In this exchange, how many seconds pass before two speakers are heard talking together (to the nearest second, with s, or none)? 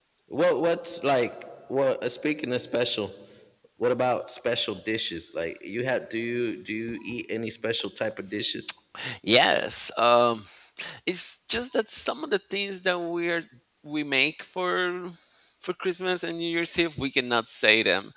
none